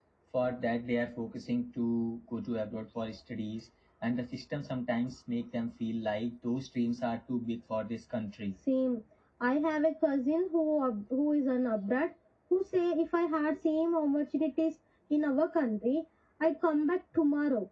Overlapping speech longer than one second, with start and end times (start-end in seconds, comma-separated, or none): none